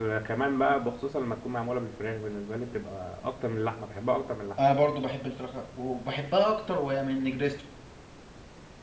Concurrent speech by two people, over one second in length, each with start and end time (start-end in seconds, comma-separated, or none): none